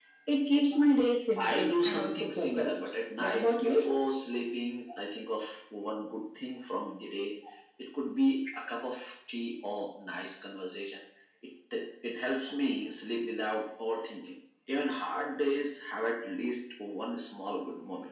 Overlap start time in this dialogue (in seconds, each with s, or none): 1.4 s